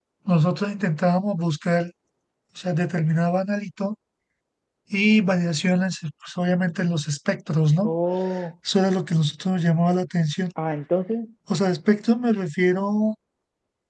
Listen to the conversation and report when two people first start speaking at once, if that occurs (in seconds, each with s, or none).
none